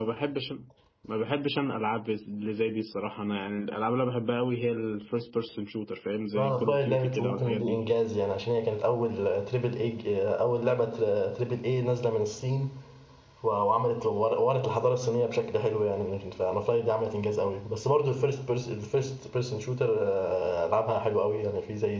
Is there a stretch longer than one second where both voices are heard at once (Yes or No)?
Yes